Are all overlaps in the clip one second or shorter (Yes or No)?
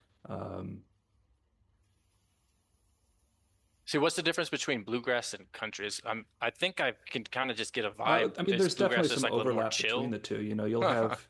No